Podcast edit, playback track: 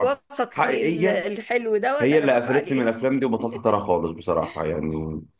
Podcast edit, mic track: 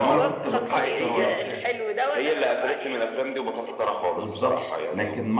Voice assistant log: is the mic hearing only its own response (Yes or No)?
No